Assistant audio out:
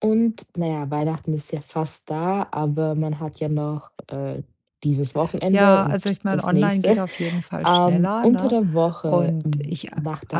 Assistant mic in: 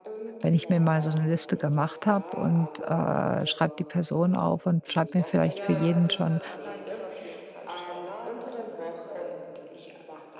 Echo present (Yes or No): Yes